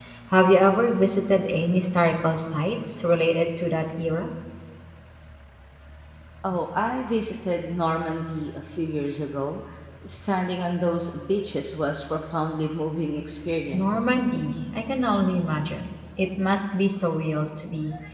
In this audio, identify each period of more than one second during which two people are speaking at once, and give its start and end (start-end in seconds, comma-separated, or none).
none